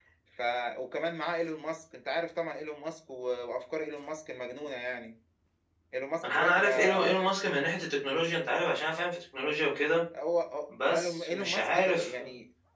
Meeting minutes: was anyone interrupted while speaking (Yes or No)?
Yes